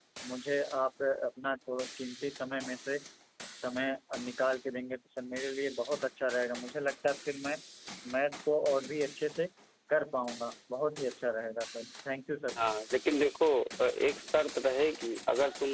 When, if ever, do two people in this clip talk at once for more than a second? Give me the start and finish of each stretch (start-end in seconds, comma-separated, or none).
none